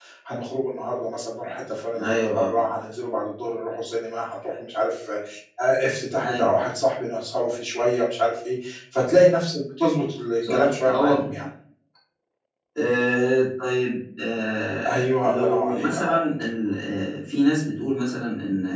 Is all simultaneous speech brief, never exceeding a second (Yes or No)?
No